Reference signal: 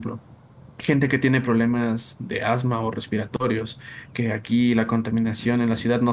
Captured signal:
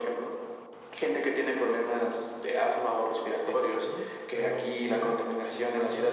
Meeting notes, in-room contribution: present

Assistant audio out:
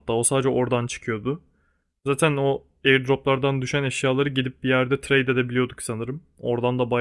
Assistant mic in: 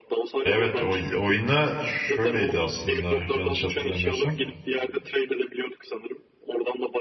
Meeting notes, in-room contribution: present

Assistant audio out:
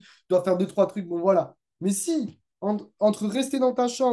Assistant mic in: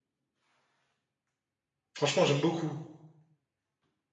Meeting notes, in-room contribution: present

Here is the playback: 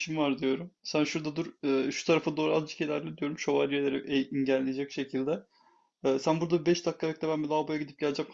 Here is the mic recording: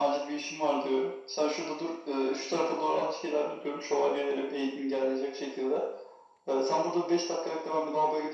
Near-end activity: none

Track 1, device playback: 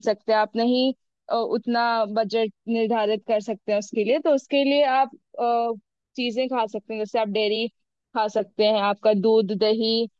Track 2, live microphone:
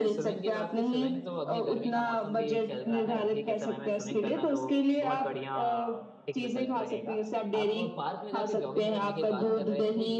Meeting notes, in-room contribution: present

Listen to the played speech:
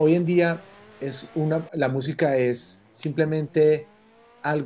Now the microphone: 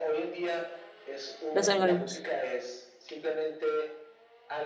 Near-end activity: present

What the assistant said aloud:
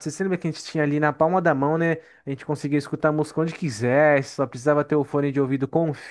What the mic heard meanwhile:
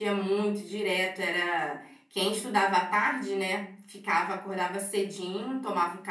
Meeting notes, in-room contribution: present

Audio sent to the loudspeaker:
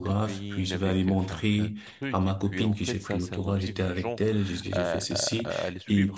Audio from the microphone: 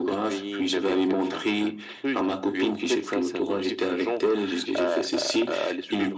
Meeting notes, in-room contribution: none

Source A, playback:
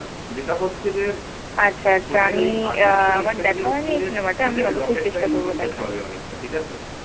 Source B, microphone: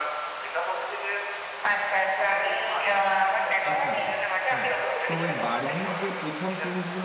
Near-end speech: present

